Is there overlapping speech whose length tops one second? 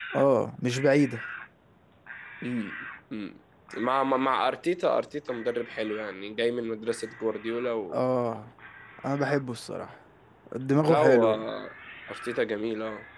No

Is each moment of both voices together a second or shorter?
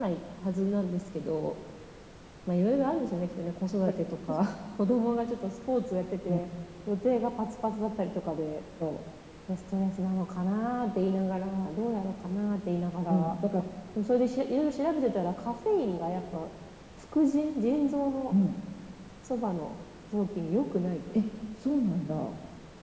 Yes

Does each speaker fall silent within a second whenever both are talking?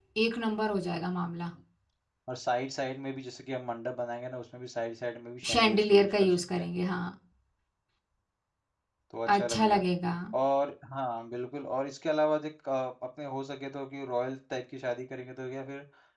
No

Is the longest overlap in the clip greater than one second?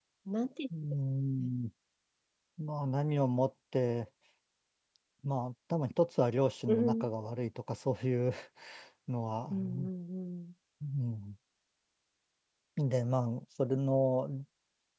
No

